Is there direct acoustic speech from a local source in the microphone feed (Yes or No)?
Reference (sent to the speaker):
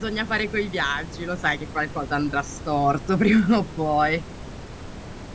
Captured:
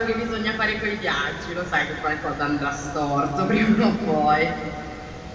No